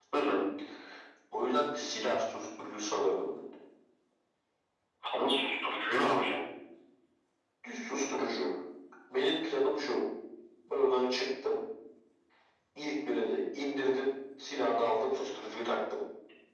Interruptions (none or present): none